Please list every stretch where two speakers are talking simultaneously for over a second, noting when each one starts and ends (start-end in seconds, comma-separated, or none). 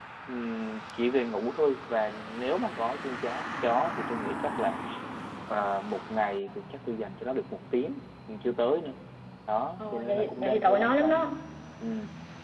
9.8-11.3